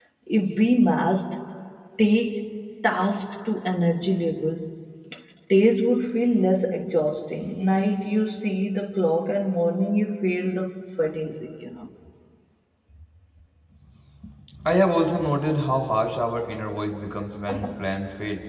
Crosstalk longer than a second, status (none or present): none